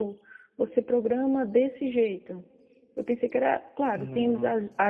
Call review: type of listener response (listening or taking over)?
listening